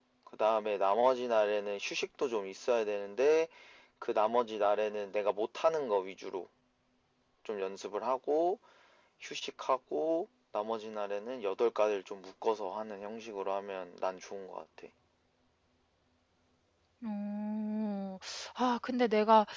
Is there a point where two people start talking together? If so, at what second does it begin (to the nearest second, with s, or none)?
none